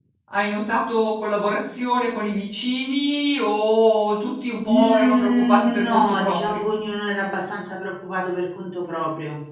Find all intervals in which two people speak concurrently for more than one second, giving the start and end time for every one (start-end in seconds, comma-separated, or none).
4.7-6.7